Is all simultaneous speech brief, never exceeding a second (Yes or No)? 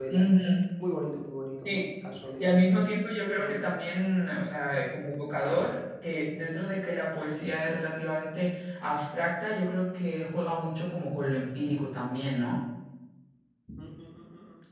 Yes